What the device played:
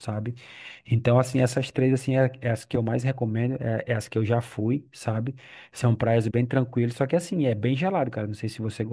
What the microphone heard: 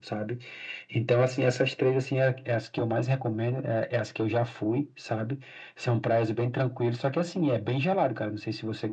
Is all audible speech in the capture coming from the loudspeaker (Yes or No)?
Yes